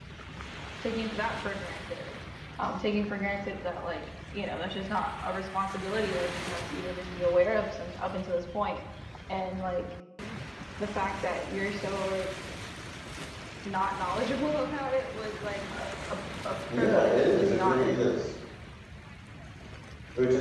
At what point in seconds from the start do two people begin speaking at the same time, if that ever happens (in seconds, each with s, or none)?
16.7 s